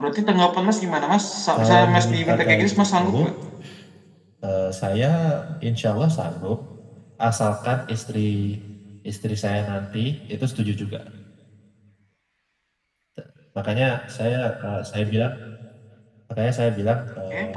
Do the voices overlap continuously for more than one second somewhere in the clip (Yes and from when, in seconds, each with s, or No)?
Yes, from 1.5 s